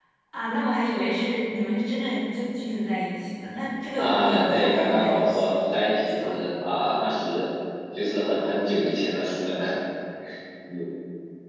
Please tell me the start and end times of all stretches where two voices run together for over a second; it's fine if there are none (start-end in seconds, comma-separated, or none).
4.0-5.4